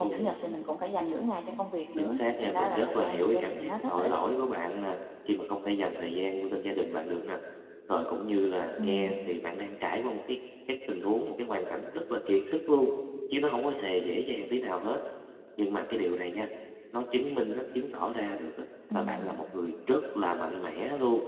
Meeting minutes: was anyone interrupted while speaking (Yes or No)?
Yes